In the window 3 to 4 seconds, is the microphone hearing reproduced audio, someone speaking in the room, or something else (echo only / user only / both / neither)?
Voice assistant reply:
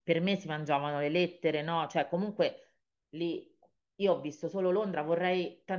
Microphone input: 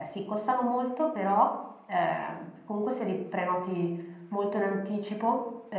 user only